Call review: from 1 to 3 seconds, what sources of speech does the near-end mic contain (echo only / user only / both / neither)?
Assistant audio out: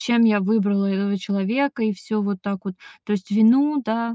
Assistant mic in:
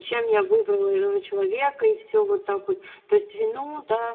echo only